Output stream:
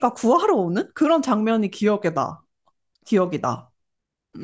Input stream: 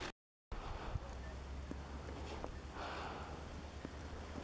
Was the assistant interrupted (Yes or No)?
No